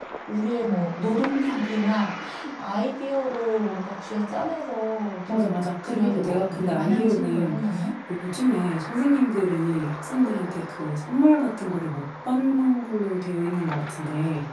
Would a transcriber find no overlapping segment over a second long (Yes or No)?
No